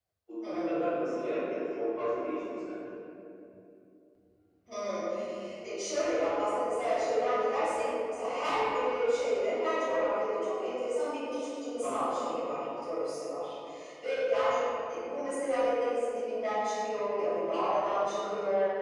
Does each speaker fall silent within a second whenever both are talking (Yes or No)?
Yes